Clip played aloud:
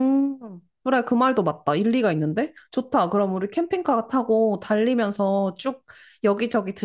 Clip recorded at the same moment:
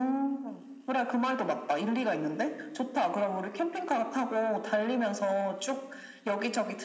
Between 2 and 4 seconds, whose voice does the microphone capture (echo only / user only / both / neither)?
echo only